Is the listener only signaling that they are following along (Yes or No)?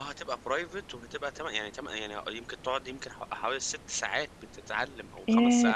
No